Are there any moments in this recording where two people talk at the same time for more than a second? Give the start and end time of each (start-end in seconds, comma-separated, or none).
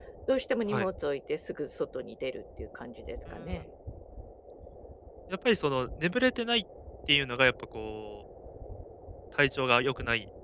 none